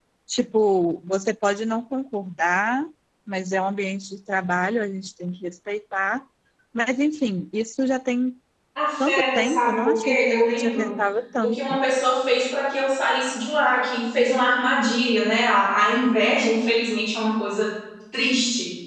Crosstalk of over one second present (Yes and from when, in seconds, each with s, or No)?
Yes, from 9.1 s